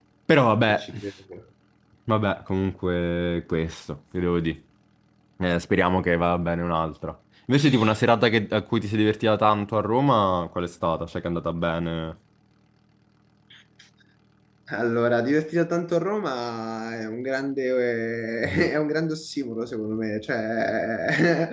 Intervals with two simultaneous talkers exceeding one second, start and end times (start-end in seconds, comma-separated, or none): none